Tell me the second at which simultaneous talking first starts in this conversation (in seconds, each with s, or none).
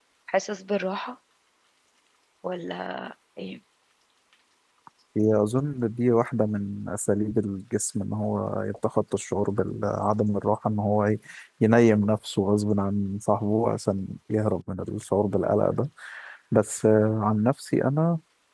none